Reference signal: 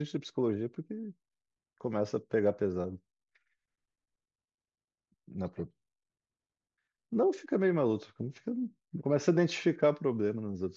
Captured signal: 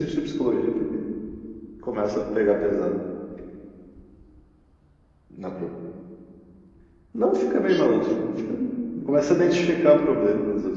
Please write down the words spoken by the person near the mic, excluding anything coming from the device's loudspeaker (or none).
Isso.